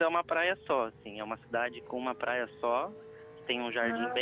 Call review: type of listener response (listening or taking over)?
listening